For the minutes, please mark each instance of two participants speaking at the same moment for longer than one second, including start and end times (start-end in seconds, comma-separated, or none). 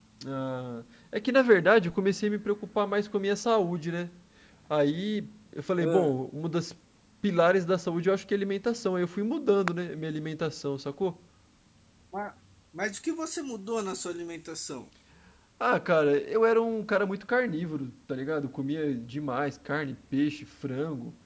none